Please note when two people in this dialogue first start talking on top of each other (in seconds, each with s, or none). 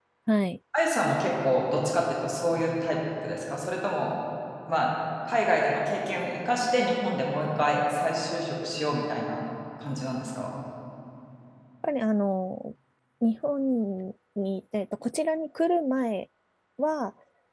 none